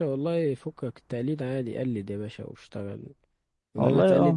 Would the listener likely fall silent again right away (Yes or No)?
Yes